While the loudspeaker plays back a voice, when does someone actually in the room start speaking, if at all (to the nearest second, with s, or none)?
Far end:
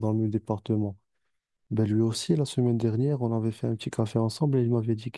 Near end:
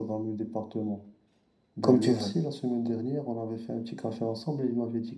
2 s